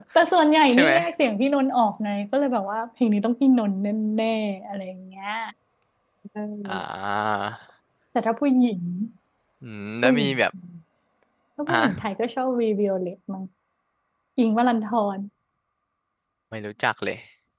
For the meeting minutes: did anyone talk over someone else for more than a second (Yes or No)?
No